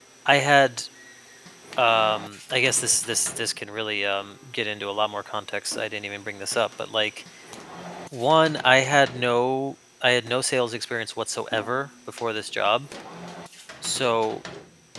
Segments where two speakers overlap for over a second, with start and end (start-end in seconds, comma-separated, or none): none